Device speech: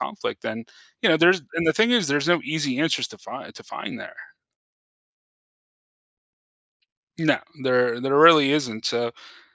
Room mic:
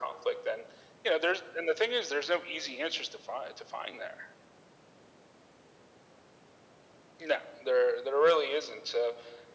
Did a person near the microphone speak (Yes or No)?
No